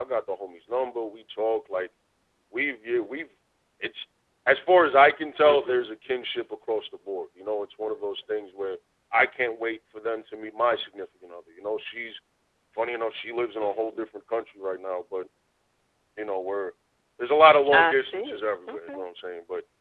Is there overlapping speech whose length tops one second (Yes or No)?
Yes